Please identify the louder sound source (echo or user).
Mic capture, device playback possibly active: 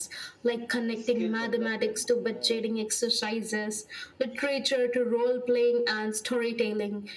echo